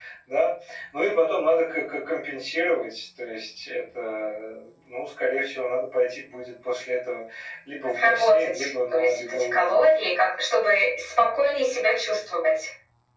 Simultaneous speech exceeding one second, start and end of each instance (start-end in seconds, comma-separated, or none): 8.0-10.1